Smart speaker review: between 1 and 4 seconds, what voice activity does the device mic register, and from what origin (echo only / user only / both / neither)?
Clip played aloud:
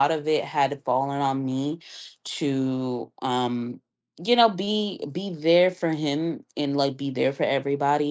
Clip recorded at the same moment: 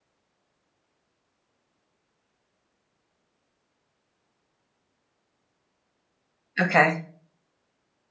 neither